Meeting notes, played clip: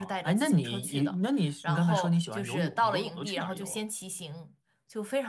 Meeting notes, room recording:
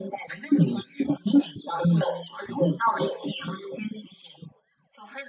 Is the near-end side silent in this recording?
Yes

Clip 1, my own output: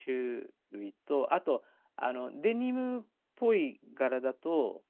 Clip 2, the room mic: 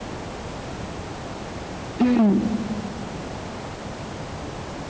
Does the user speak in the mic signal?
Yes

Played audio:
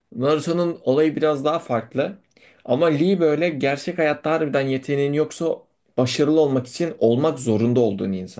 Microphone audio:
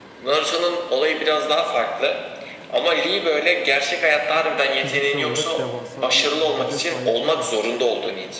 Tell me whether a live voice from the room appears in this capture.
Yes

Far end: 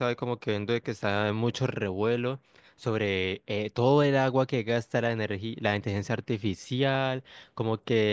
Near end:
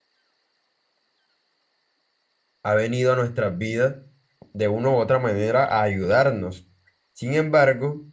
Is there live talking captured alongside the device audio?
Yes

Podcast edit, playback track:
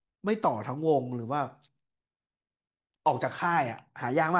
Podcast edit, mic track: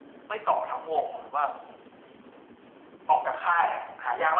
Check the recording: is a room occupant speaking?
No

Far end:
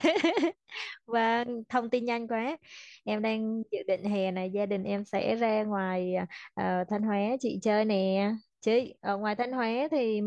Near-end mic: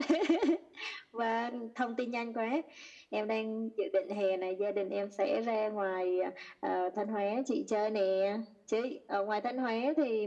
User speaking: No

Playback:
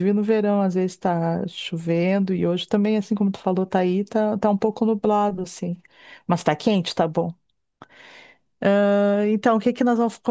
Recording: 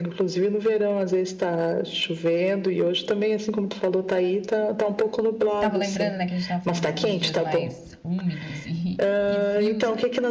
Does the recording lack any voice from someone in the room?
No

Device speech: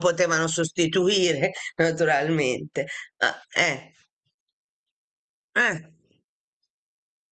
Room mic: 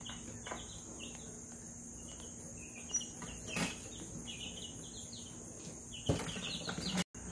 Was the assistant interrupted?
No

